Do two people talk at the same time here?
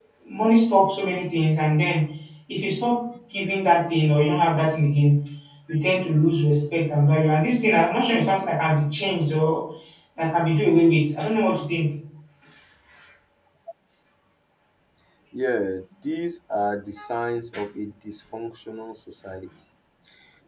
No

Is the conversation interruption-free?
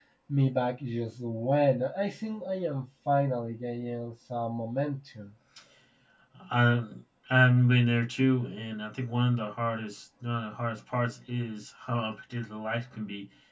Yes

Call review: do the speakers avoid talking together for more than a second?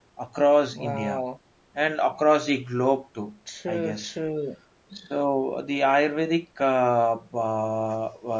Yes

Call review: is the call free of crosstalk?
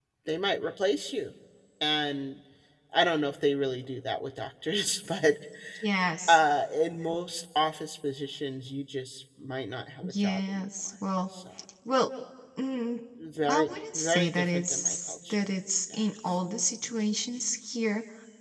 No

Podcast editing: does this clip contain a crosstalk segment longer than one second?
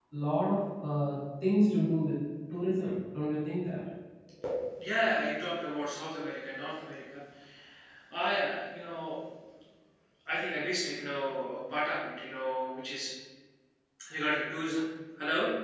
No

